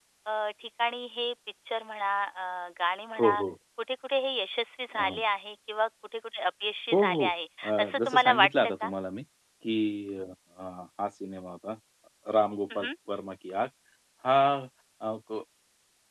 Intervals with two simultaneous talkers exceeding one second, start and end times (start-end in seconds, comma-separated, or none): 7.6-8.9